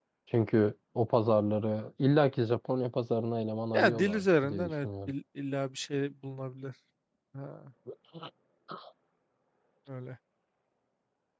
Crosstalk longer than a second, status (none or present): present